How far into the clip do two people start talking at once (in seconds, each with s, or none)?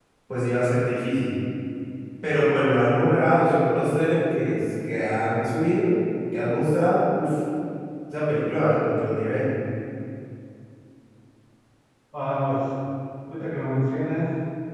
none